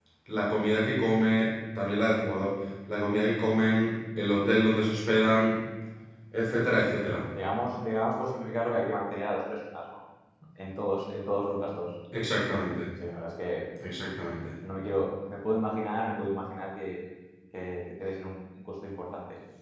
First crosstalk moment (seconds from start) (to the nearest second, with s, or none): none